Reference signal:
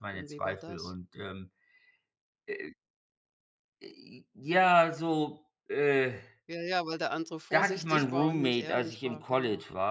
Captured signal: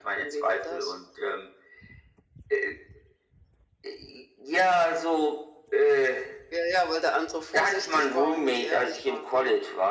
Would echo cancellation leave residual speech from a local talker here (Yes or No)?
No